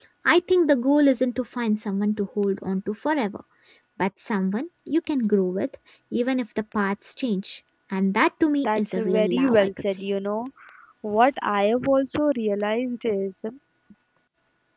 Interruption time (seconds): 8.6 s

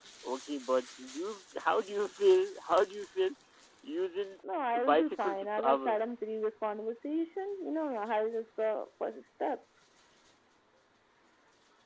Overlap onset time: 4.8 s

